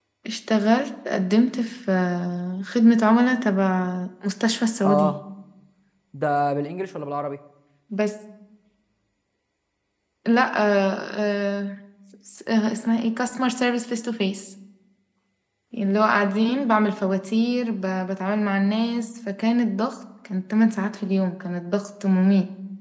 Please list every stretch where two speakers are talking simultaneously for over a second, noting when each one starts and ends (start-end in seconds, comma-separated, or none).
none